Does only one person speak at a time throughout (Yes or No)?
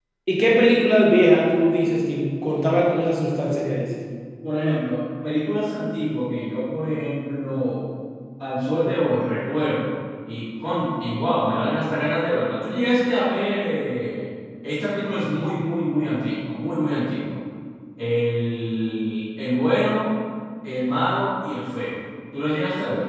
Yes